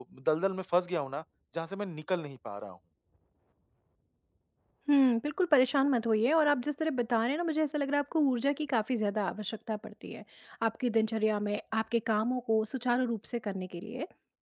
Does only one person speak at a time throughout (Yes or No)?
Yes